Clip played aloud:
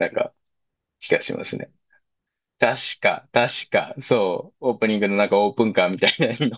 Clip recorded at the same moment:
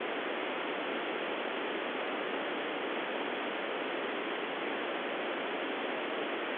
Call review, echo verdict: none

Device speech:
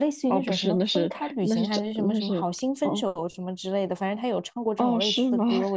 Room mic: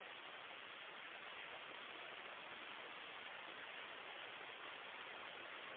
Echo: none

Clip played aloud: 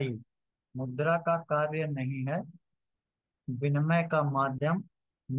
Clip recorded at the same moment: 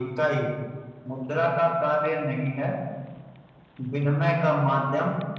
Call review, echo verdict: present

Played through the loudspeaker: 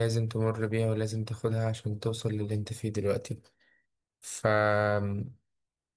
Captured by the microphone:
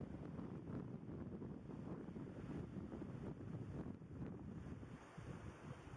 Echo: none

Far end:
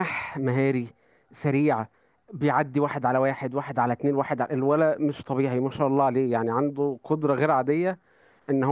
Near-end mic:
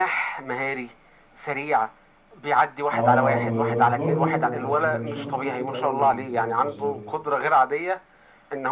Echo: present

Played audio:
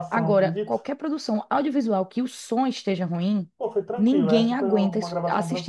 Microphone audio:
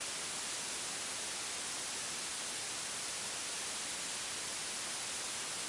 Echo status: none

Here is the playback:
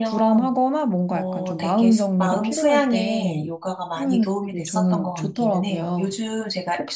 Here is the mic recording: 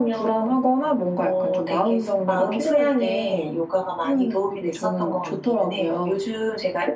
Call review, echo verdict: present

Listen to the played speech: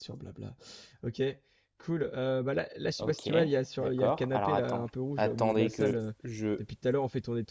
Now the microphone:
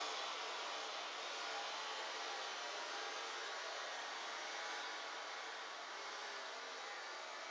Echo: none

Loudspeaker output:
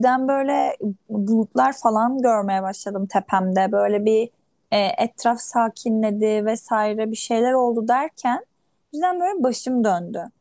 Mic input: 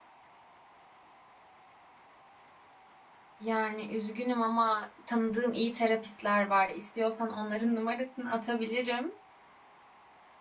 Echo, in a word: none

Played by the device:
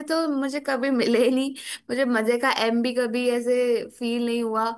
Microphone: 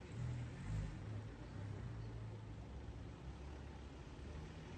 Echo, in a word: none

